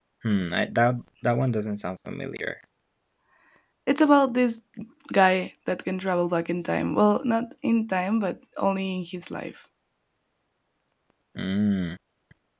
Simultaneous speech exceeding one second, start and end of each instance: none

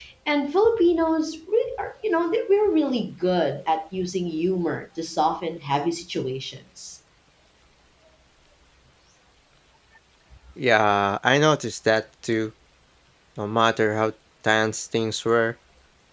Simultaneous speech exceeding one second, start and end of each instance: none

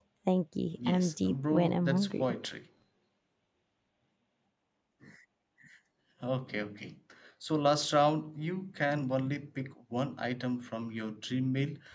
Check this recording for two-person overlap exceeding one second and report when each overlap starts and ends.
0.9-2.3

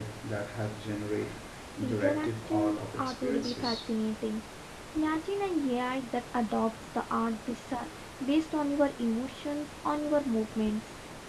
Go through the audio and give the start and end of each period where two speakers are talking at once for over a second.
1.8-3.9

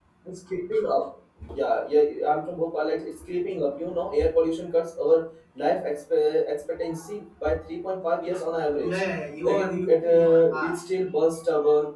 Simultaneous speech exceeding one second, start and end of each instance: 9.4-10.8

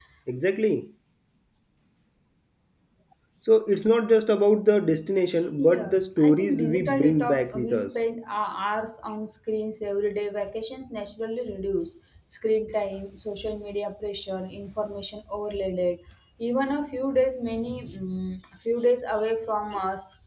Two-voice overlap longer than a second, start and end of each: 5.6-7.9

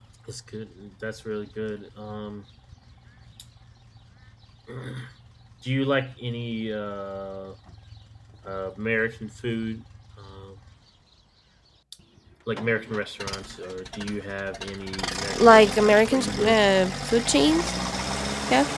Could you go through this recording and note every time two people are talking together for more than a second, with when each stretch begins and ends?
15.3-16.6

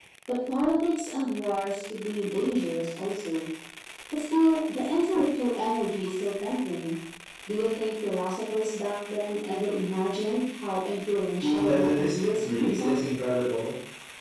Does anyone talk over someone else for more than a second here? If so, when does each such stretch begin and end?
11.3-13.0

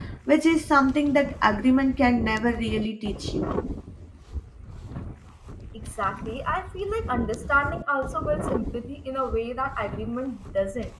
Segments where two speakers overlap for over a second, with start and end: none

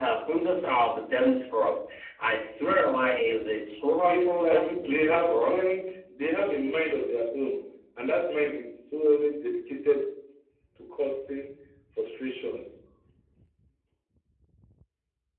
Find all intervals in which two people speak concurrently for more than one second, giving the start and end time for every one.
4.1-5.6

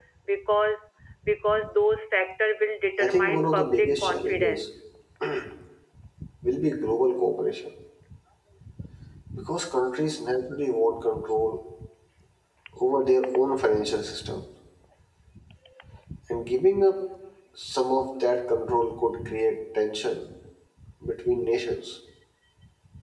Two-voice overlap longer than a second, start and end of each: 3.0-4.6

